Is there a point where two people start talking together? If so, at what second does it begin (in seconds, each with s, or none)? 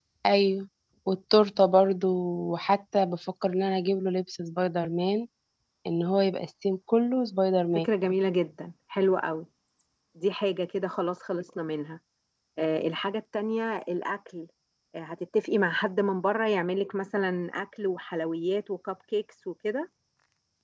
none